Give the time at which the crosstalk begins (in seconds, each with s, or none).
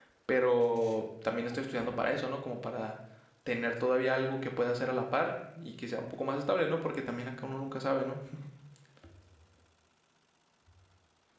none